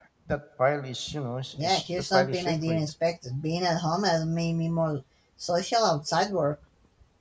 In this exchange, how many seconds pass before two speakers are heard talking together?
1.6 s

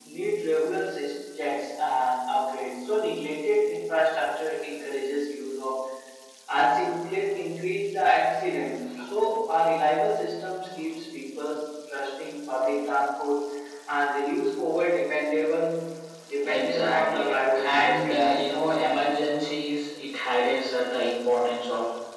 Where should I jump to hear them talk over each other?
16.4 s

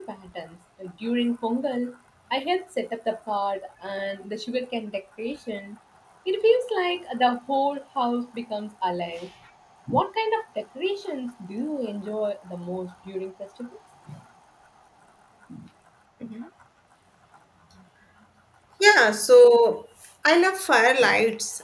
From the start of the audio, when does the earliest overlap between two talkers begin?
none

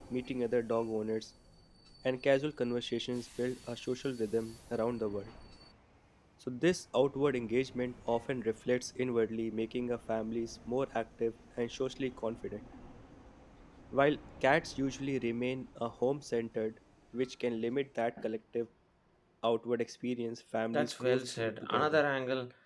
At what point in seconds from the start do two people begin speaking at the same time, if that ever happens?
20.7 s

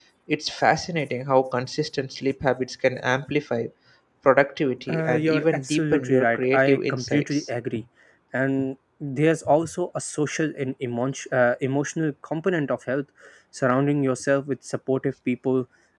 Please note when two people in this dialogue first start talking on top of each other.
4.9 s

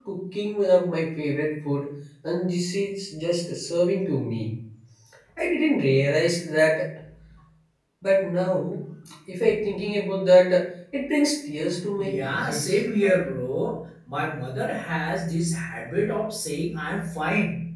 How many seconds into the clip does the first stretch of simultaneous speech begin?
12.0 s

